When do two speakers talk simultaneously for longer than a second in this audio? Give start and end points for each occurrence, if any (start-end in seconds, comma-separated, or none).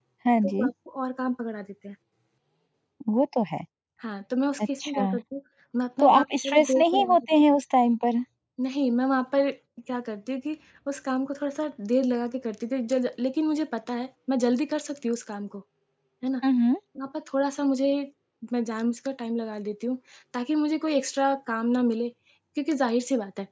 6.0-7.3